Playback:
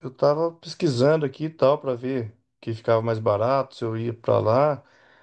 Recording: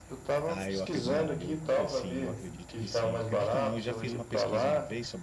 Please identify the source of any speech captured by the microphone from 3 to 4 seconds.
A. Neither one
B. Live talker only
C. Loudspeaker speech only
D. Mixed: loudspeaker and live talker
D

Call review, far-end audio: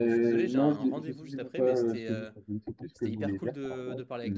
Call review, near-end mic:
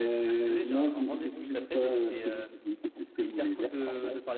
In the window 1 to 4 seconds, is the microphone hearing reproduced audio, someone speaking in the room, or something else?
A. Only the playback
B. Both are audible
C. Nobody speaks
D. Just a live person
A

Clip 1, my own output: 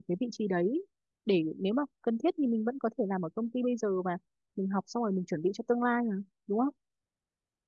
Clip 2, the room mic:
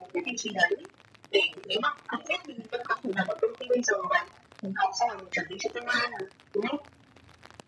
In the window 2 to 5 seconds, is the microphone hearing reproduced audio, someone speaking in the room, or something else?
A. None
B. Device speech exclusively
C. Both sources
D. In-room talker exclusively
B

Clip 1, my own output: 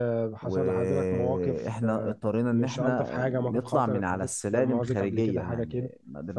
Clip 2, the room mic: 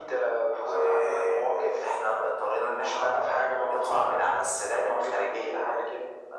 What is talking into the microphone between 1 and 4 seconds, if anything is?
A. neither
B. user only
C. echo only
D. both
C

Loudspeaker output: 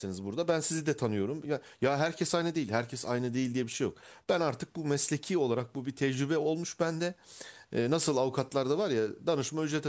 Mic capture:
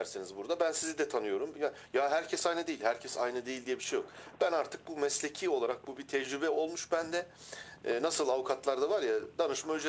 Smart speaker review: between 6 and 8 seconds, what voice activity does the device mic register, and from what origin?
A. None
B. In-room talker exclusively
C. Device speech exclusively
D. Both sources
C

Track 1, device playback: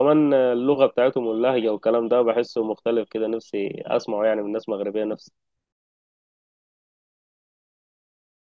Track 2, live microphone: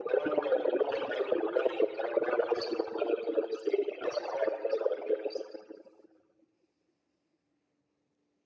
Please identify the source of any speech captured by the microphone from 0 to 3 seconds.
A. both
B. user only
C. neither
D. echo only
D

